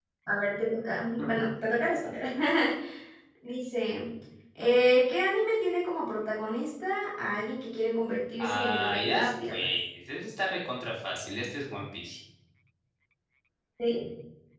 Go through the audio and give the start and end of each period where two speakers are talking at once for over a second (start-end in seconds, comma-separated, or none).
8.4-9.7